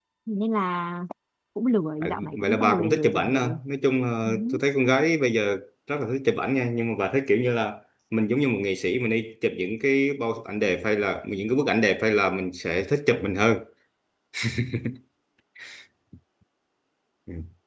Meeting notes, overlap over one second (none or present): present